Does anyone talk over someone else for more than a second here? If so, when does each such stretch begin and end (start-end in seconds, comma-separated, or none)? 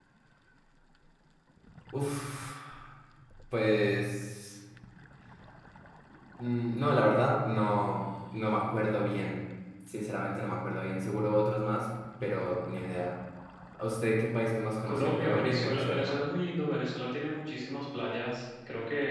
14.8-16.2